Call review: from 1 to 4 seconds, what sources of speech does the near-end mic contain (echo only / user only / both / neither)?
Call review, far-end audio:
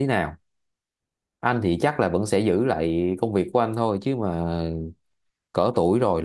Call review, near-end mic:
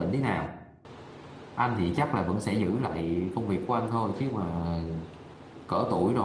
echo only